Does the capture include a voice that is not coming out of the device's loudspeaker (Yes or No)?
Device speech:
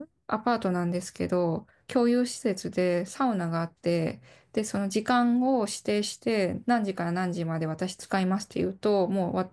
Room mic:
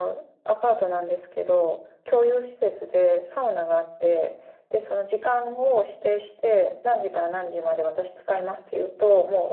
No